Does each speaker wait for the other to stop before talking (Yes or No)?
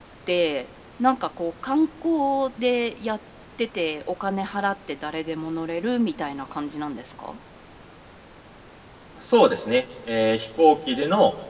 Yes